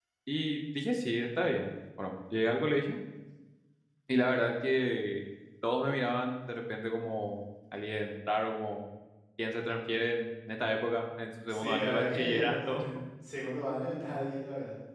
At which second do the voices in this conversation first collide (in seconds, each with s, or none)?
11.5 s